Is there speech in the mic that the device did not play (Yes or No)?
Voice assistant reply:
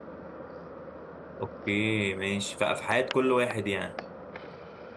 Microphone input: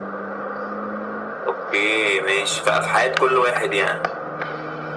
No